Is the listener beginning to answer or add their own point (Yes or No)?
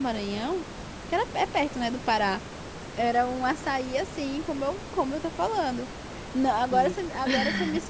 No